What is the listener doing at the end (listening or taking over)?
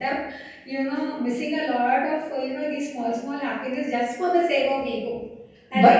listening